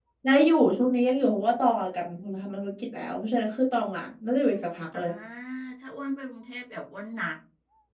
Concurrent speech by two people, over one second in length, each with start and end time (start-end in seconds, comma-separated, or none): none